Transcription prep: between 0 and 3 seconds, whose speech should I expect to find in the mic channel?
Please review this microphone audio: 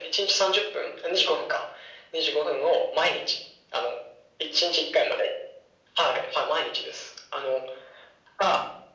echo only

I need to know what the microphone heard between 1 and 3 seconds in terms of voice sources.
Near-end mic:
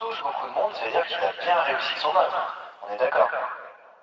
echo only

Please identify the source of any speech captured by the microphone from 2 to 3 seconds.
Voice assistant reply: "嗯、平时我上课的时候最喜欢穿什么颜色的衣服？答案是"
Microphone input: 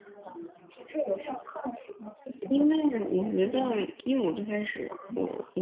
both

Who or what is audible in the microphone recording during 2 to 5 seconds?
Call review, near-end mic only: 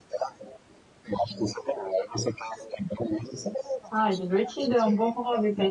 both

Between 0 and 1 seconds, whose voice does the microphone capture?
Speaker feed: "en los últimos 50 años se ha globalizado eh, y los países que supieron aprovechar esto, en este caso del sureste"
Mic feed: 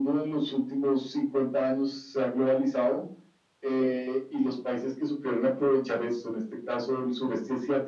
echo only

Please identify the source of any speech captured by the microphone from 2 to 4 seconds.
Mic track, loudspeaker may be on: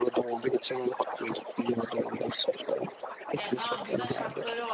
both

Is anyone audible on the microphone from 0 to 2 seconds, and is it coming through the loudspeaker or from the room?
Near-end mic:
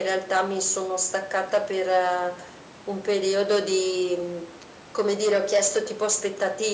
echo only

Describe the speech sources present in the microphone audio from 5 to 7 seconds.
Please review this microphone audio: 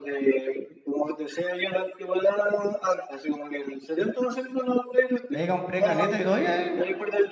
both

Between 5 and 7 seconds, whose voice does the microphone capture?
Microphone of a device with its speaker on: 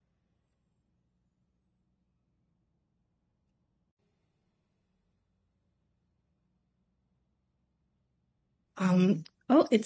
neither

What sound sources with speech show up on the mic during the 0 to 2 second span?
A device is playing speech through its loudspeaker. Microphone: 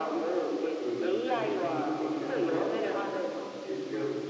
both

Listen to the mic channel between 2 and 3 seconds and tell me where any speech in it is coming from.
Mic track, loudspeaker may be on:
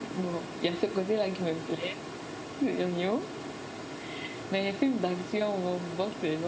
echo only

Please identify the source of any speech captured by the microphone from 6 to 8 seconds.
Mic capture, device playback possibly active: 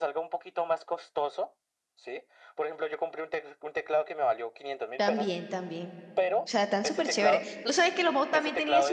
both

